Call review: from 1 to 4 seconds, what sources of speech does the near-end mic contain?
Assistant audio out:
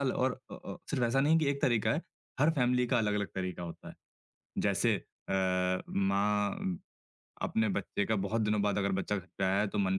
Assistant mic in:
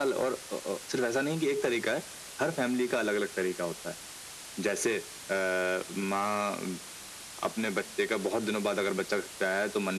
echo only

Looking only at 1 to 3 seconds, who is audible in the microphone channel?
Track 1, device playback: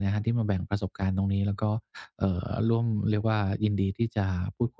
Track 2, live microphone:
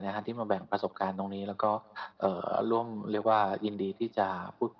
echo only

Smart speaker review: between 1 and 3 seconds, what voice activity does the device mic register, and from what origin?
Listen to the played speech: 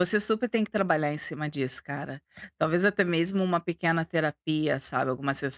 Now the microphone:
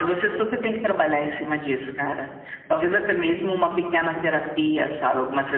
echo only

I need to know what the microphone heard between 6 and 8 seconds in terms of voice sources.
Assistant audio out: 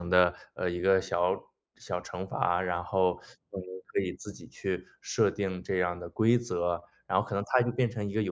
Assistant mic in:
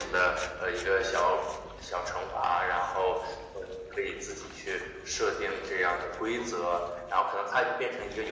echo only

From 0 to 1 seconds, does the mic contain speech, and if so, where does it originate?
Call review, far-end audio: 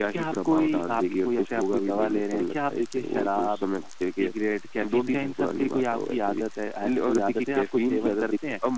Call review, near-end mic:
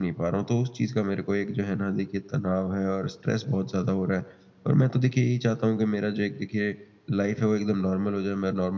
user only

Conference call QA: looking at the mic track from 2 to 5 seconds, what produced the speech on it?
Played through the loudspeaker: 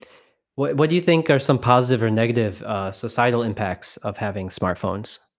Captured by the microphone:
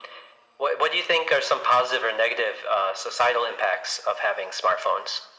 echo only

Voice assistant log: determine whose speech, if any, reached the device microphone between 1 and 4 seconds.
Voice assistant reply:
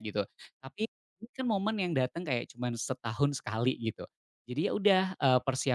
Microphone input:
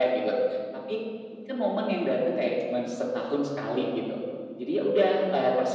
echo only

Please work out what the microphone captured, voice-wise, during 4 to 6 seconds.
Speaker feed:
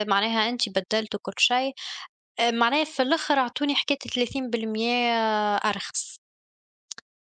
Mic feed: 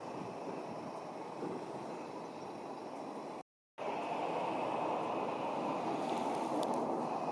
neither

